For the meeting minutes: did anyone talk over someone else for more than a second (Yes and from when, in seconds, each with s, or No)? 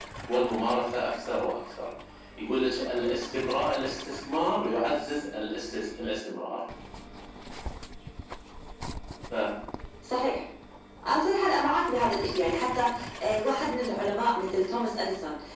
No